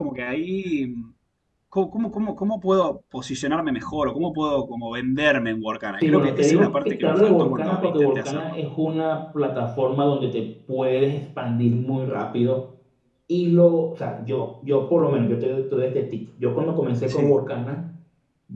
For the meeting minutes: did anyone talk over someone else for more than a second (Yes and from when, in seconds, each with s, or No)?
Yes, from 6.0 s